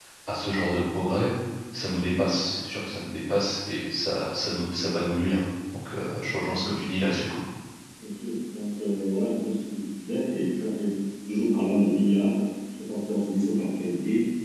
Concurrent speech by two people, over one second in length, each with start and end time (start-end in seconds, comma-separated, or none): none